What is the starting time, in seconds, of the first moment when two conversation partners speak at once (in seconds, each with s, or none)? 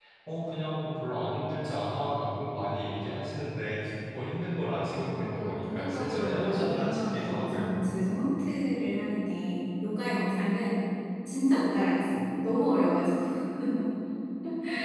5.1 s